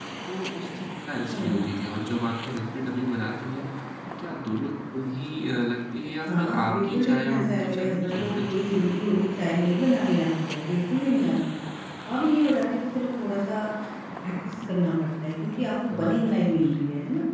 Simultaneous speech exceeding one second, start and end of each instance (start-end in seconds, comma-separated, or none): 6.3-9.0